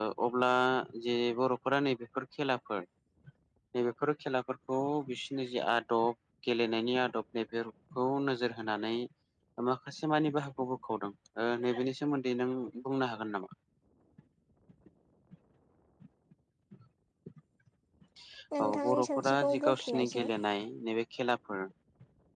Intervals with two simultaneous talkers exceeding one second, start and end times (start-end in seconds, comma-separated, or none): 18.6-20.3